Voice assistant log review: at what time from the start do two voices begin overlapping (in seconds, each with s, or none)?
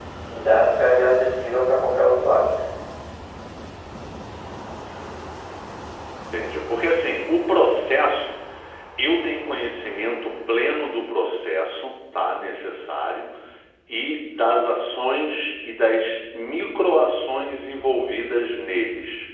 none